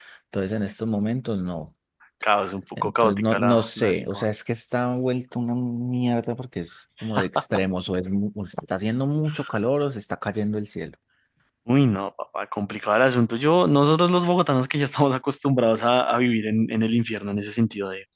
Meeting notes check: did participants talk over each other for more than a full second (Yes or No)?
Yes